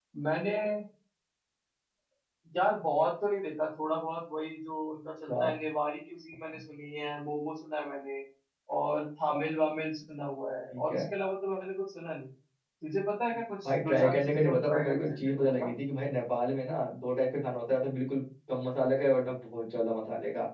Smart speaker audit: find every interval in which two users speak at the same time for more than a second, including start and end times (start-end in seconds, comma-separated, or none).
13.7-15.7